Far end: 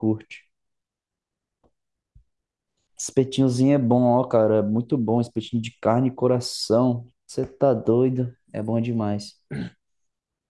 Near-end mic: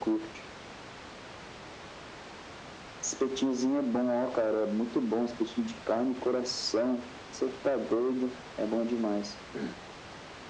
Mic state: echo only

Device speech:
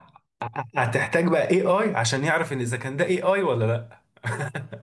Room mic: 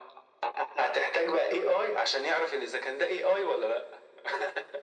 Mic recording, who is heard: echo only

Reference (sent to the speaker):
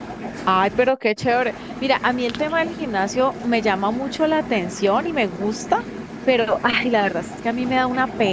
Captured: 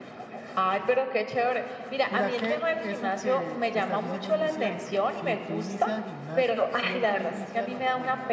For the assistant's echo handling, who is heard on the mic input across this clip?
both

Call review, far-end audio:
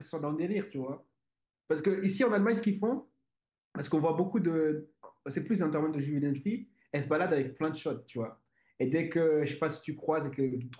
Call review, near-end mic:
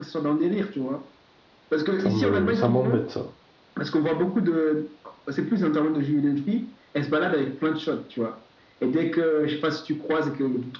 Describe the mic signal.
both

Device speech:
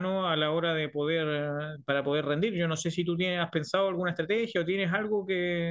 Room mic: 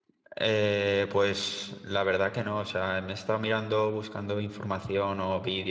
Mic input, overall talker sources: user only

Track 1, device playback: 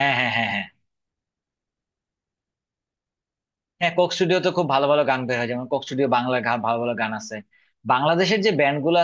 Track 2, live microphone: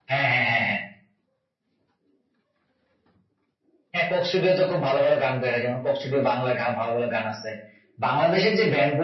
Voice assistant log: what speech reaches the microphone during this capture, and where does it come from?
echo only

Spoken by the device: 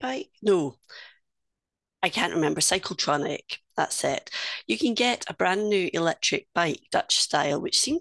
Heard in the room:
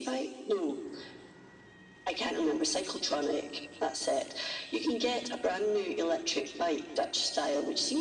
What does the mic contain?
echo only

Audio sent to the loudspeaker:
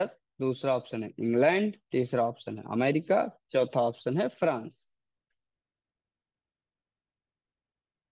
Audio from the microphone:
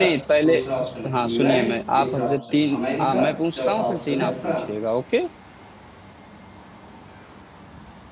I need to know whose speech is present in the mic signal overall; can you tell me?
both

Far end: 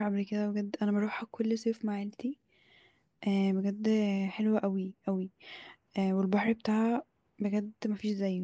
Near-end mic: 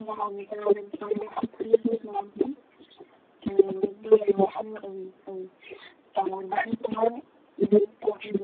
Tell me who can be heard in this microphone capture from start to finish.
echo only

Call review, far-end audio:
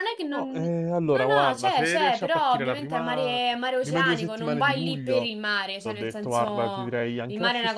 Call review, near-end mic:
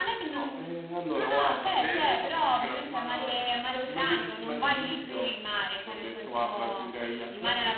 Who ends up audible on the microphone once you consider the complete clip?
echo only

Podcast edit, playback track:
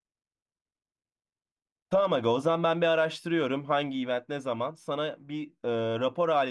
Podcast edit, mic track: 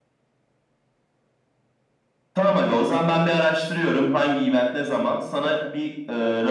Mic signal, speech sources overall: echo only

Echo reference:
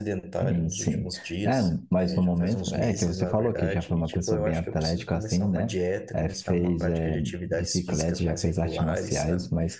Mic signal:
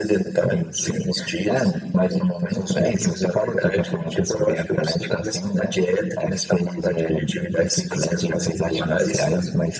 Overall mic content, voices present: echo only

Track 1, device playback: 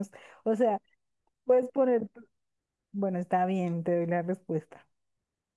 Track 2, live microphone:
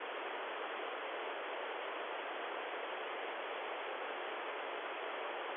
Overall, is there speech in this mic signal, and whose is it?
neither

